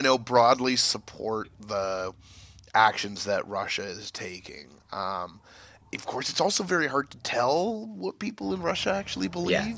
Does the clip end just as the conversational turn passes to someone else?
No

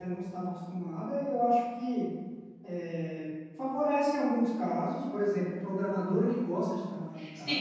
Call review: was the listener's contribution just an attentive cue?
No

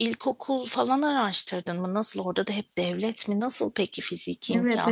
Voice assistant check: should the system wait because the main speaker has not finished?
No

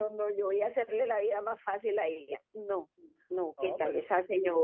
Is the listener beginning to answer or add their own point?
No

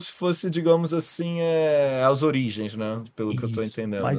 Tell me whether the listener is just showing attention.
No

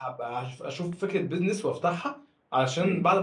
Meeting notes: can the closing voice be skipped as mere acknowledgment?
Yes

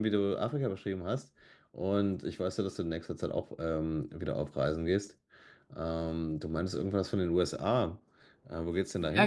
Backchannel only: No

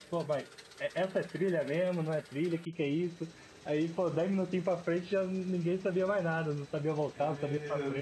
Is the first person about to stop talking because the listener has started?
Yes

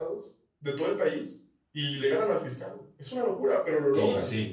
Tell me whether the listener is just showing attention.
No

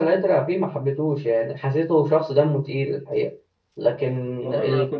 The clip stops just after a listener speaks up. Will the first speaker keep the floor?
No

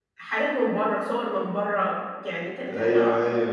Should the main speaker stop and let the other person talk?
Yes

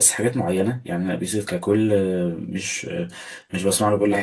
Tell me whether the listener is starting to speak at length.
Yes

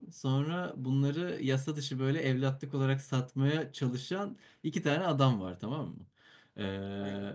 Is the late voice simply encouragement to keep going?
Yes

